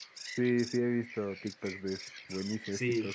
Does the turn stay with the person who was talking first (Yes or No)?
No